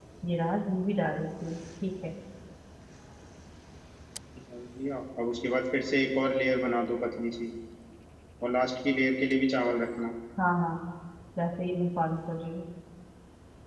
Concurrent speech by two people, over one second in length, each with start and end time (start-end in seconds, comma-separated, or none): none